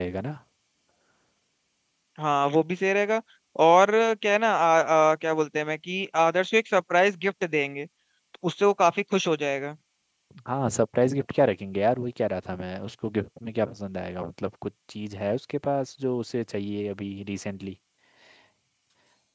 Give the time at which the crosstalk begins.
none

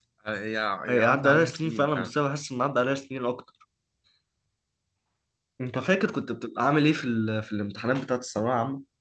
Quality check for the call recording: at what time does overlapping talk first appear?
1 s

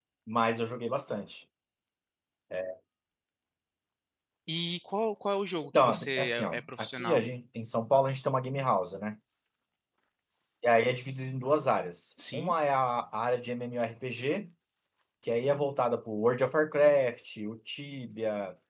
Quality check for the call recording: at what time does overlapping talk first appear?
6 s

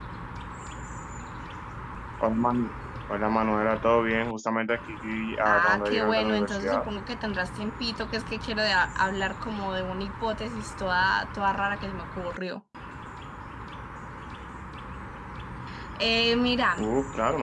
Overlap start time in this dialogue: 5 s

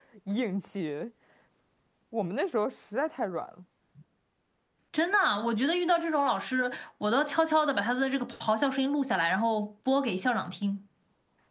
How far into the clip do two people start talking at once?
none

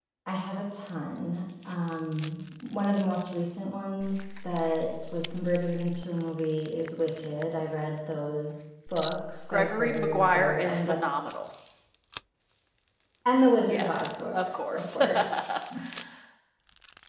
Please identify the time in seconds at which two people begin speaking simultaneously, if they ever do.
10 s

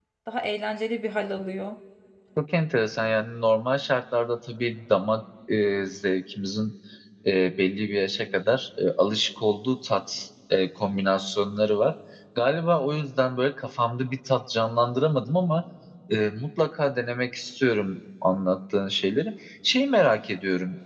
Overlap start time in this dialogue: none

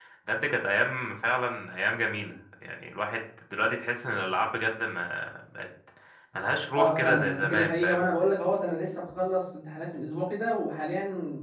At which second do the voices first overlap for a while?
7 s

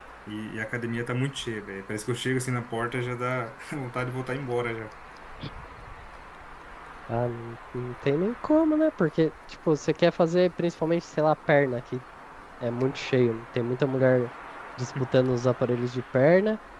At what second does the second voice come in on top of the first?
none

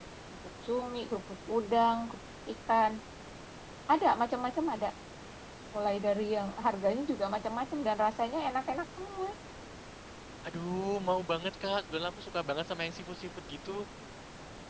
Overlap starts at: none

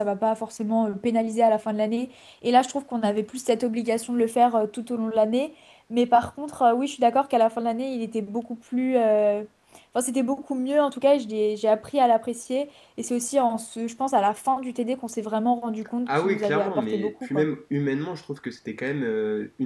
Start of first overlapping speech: 16 s

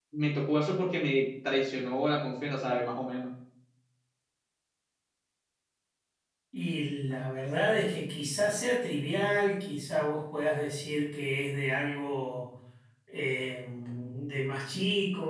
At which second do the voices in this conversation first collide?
none

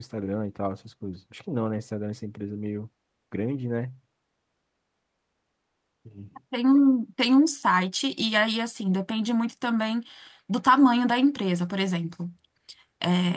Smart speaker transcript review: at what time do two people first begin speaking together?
none

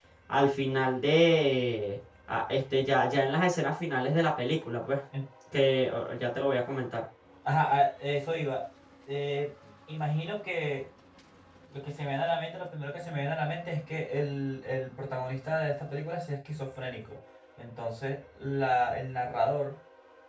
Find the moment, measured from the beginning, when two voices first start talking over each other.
none

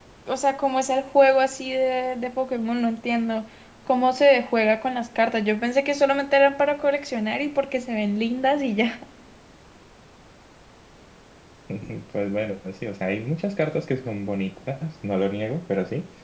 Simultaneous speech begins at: none

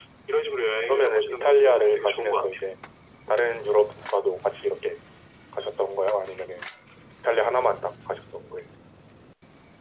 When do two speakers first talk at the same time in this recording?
1 s

